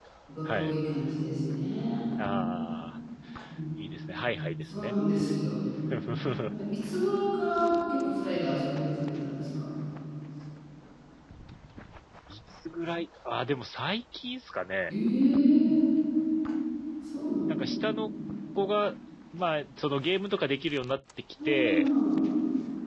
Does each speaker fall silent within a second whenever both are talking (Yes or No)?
Yes